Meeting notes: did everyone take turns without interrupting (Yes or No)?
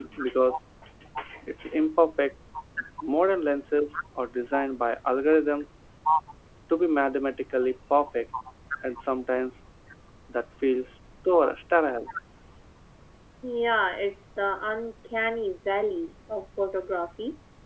Yes